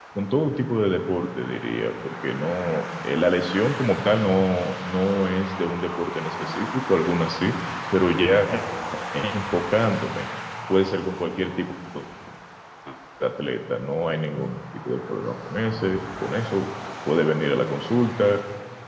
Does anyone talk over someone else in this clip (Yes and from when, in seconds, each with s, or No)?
No